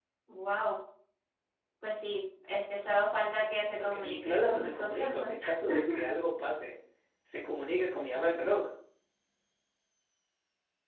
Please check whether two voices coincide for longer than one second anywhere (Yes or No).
Yes